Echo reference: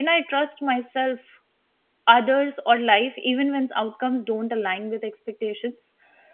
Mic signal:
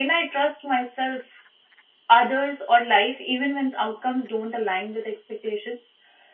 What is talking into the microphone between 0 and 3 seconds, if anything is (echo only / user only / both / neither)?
echo only